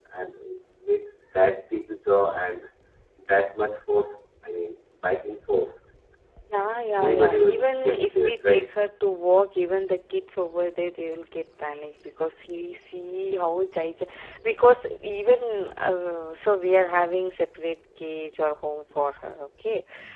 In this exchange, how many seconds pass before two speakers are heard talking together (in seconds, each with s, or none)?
7.0 s